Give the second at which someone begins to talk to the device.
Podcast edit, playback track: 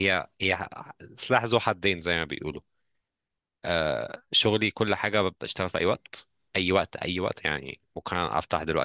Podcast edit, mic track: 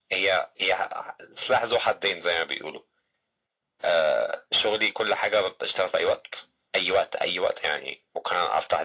none

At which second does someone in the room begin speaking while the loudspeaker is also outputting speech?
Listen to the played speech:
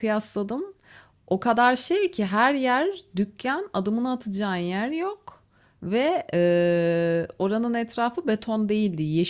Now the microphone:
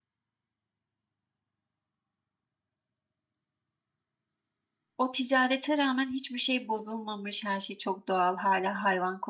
5.0 s

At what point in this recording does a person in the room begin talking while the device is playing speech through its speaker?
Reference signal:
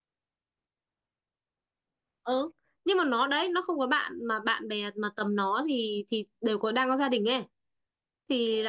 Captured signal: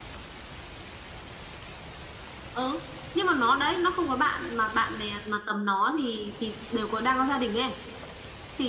none

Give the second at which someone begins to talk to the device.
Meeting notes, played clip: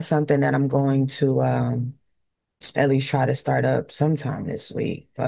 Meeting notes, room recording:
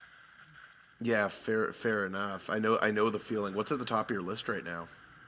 1.0 s

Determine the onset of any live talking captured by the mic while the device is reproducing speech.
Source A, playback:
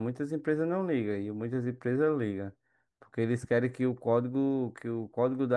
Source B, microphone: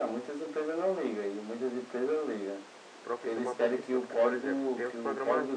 3.0 s

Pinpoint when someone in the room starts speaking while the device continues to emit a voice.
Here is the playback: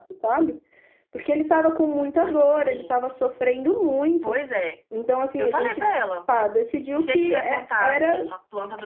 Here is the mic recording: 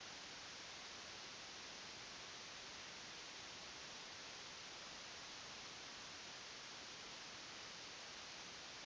none

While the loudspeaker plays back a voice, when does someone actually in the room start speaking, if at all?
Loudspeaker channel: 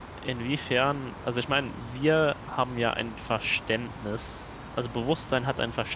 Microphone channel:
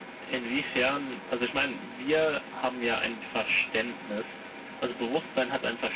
none

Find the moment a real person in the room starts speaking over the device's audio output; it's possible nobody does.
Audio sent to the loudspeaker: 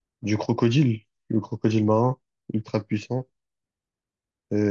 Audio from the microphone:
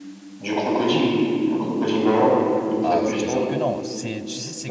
2.8 s

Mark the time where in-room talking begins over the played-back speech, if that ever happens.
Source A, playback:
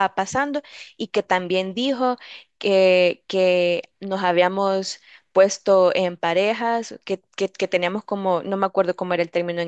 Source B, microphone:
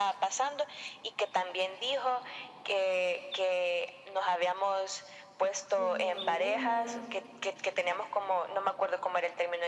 5.7 s

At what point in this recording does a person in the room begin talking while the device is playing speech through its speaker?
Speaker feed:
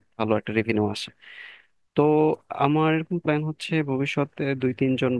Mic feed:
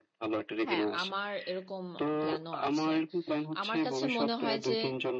0.6 s

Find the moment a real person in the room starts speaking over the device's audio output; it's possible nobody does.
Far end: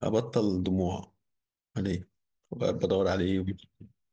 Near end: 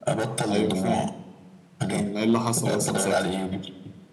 0.5 s

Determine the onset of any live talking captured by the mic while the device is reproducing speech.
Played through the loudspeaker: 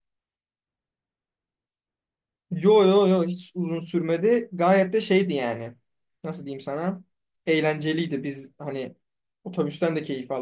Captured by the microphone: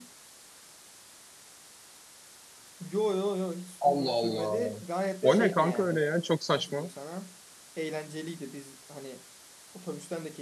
3.8 s

